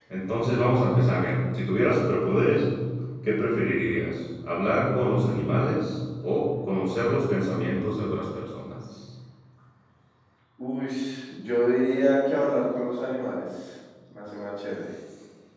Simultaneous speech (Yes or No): No